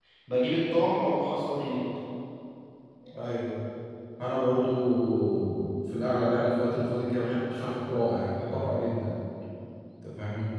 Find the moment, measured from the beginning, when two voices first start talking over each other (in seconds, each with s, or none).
none